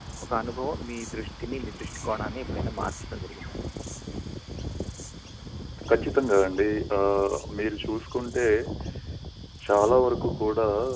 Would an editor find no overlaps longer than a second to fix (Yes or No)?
Yes